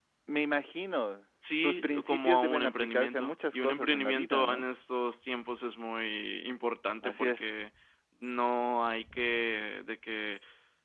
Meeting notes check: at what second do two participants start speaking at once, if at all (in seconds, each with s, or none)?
1.6 s